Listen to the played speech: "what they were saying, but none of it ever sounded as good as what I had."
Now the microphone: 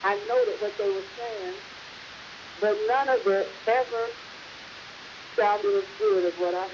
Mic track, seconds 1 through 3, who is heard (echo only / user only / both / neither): echo only